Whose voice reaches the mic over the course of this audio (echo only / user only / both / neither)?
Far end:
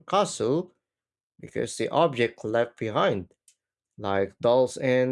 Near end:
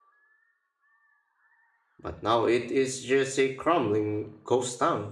user only